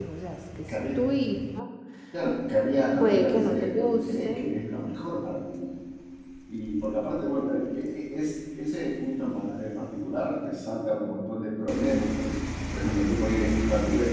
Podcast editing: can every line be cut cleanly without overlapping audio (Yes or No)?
No